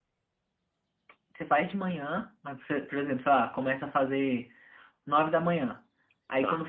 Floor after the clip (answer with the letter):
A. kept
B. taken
A